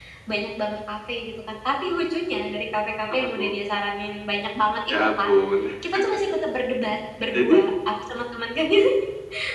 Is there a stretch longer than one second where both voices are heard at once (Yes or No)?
No